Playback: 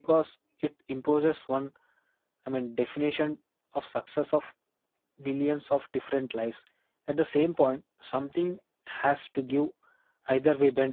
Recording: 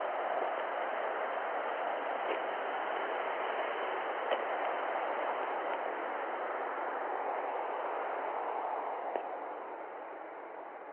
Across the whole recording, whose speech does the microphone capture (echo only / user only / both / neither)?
neither